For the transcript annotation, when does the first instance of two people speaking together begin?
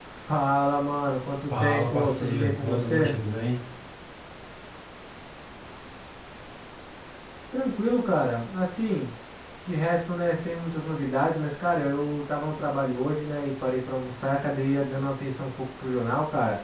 1.5 s

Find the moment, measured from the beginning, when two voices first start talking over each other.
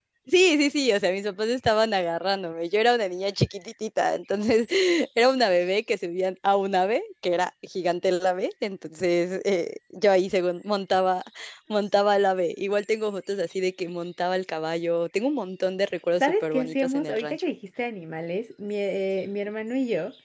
16.2 s

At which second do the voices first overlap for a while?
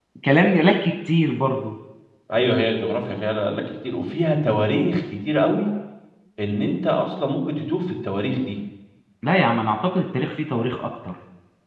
none

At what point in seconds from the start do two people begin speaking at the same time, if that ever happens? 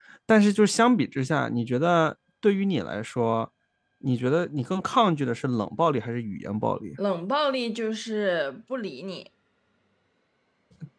none

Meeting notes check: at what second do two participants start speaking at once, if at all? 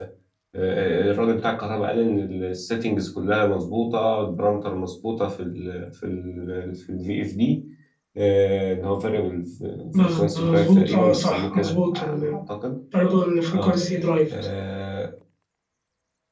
10.0 s

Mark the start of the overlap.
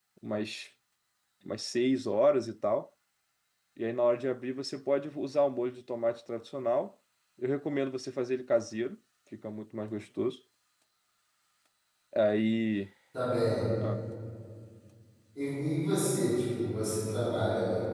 none

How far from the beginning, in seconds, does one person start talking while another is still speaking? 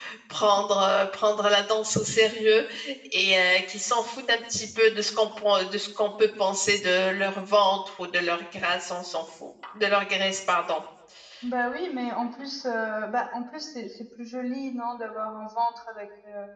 none

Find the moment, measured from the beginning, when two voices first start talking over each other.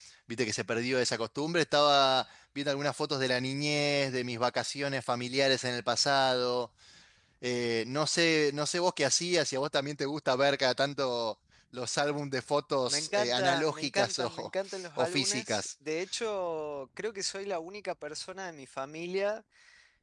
12.9 s

